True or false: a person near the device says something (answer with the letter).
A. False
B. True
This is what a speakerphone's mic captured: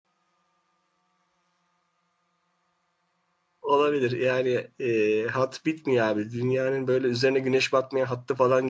B